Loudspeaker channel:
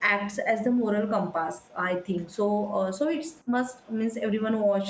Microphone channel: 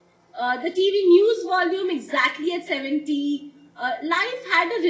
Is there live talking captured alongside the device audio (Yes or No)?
Yes